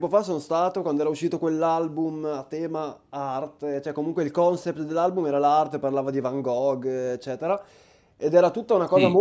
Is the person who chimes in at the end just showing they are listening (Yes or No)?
Yes